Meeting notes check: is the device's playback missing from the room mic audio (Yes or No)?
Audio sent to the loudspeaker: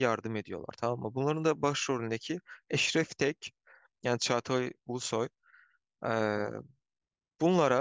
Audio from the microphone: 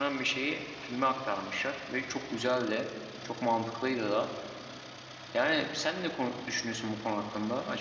Yes